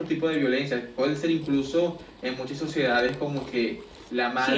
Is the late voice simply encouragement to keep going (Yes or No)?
No